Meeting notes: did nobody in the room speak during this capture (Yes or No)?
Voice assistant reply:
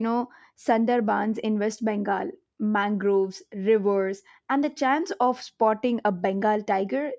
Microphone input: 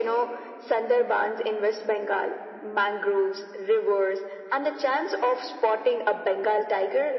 Yes